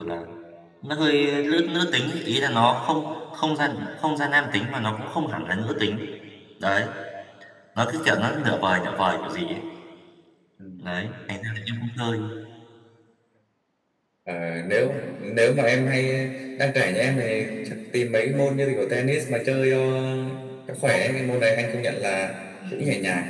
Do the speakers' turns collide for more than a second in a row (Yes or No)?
No